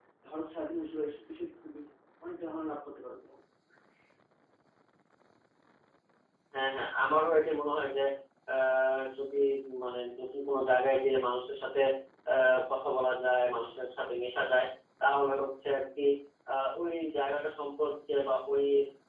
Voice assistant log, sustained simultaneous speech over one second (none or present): none